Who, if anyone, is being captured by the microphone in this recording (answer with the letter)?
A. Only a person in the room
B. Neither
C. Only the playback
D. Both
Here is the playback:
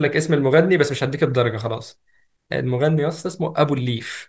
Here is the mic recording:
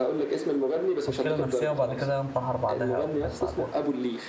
D